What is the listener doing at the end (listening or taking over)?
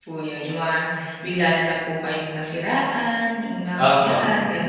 taking over